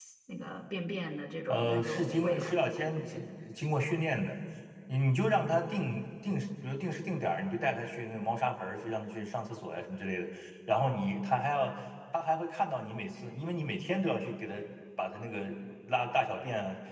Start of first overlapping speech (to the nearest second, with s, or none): 1 s